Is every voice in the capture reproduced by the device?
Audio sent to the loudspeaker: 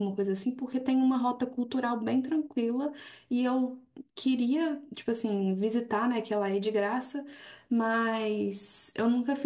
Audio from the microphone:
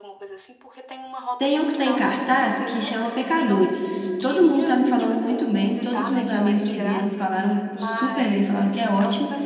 No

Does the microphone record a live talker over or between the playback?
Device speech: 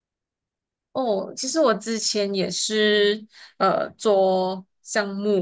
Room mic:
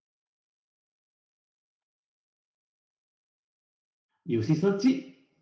Yes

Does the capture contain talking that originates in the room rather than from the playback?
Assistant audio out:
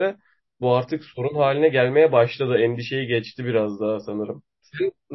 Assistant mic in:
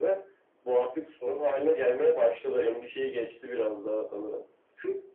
No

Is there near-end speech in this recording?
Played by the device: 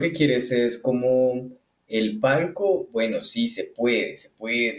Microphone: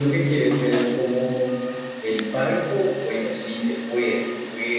No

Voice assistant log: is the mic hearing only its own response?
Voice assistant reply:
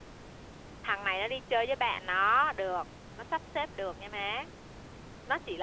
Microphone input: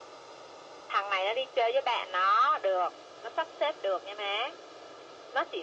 Yes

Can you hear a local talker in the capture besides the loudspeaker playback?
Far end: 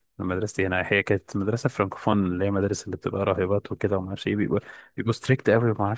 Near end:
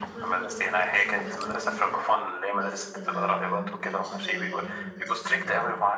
Yes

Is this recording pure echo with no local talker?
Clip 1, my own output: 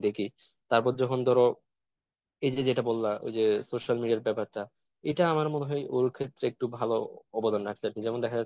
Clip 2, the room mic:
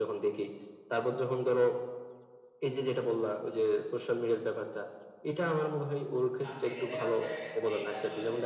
No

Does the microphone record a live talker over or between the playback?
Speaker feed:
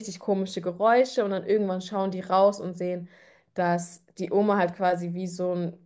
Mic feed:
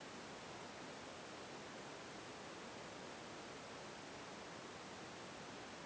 No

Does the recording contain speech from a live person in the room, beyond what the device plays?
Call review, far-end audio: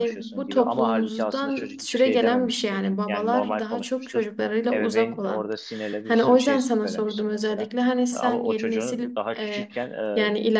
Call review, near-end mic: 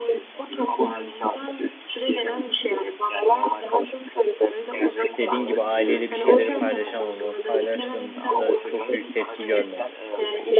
Yes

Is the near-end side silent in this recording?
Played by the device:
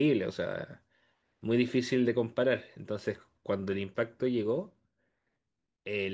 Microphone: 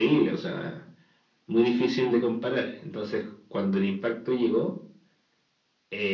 Yes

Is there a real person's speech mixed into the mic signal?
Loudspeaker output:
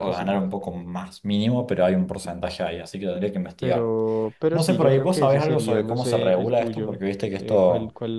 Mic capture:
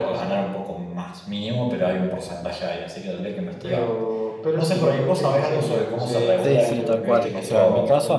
Yes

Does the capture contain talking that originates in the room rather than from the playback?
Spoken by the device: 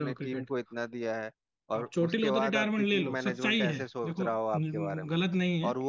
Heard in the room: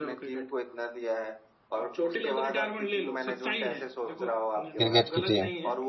Yes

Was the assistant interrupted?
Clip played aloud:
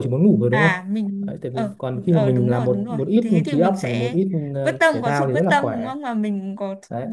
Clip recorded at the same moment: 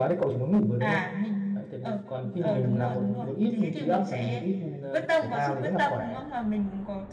No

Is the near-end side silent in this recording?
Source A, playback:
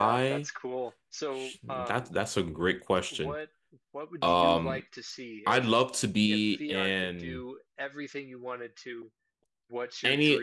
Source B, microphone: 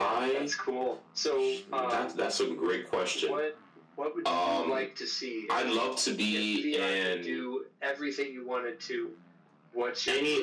Yes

